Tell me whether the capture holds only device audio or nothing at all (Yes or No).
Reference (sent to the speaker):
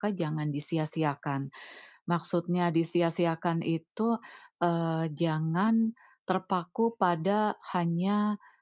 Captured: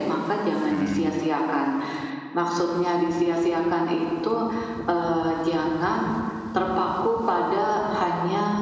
No